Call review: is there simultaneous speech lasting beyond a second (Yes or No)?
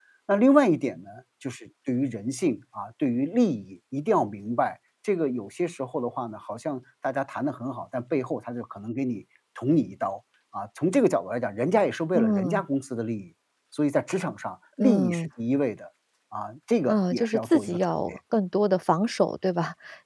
Yes